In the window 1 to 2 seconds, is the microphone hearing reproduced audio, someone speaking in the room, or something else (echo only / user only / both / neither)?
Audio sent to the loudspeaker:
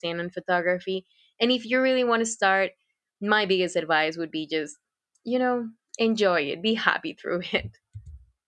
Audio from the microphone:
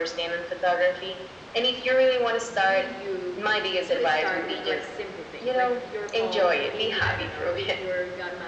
echo only